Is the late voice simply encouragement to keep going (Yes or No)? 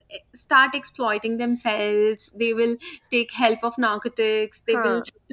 Yes